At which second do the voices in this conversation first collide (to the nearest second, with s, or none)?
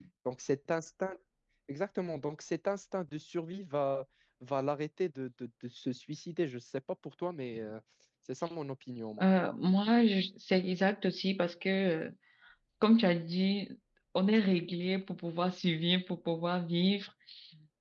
none